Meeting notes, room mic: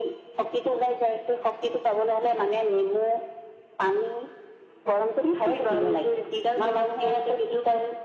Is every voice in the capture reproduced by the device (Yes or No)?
Yes